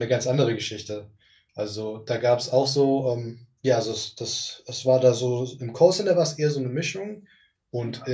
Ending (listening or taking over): listening